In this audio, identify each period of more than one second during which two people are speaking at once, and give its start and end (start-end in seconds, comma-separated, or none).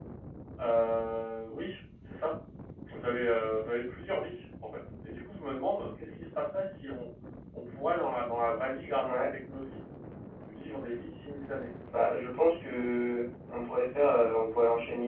none